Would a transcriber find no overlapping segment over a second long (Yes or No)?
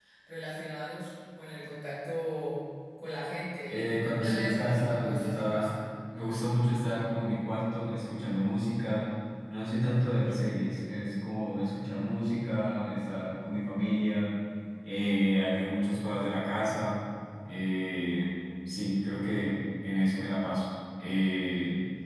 No